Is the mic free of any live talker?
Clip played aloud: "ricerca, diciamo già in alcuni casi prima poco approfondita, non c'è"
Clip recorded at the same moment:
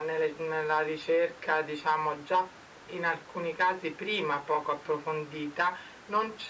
Yes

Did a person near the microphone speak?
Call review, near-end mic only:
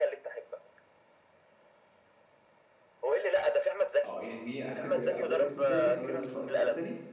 Yes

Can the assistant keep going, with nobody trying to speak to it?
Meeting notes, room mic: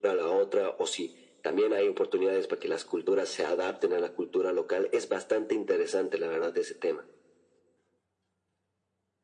Yes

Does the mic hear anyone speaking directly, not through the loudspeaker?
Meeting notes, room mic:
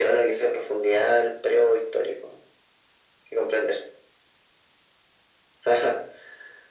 No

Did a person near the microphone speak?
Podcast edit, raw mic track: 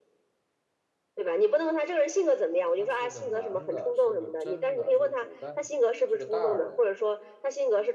Yes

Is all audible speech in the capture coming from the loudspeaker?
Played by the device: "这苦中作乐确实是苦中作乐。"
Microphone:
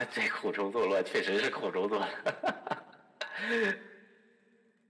Yes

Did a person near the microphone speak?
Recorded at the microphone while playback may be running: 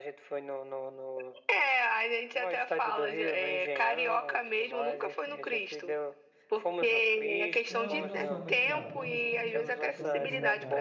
Yes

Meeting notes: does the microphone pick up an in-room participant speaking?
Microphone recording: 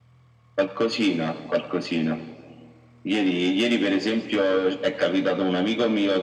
No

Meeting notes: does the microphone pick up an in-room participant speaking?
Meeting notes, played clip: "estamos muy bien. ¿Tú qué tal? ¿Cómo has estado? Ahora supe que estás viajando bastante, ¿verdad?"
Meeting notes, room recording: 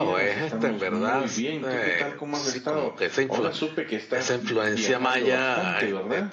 Yes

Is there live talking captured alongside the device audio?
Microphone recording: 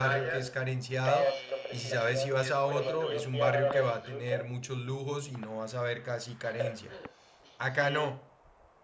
Yes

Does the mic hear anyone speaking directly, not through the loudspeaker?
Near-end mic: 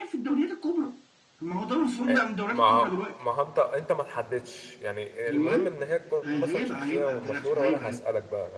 Yes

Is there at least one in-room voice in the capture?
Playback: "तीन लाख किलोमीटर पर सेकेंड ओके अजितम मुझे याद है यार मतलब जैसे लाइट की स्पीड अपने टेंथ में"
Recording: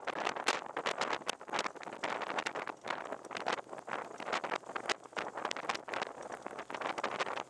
No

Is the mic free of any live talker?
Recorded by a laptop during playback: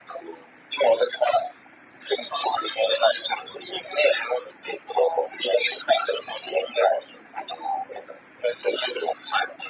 Yes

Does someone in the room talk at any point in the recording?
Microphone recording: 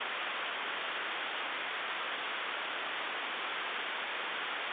No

